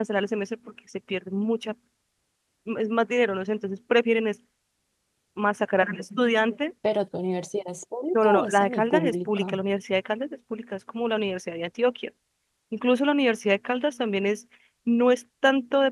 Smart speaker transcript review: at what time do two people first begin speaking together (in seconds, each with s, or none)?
8.1 s